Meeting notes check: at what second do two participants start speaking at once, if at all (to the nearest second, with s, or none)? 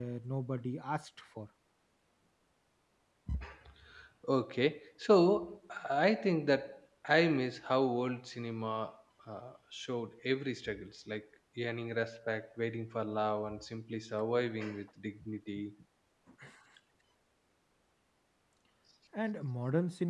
none